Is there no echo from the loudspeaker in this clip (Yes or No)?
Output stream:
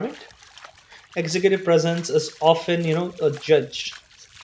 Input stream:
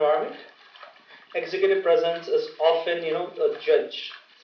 No